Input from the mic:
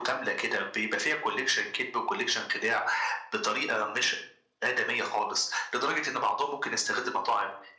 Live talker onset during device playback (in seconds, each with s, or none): none